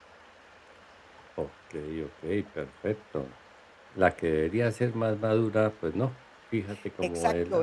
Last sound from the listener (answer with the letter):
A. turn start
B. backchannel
A